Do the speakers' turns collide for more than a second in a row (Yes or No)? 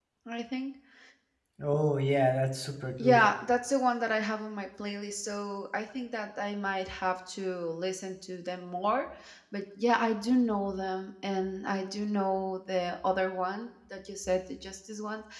No